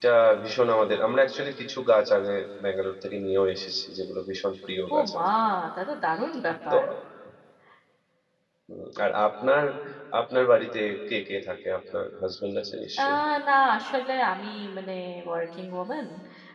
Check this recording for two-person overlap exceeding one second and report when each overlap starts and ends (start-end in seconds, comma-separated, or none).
none